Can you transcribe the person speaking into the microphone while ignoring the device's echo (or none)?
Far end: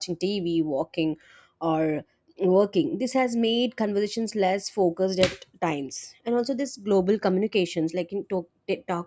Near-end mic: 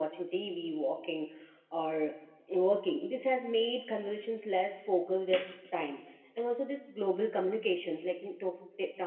none